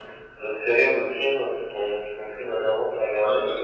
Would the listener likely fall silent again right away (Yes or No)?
No